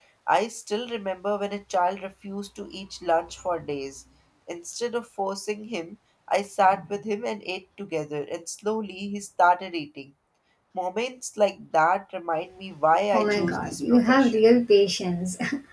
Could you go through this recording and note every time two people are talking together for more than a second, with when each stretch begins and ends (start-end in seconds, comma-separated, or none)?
13.1-14.4